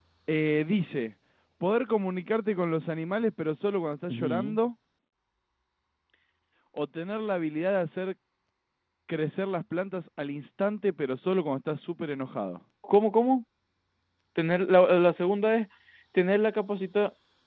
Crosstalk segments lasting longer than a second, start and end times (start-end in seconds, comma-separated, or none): none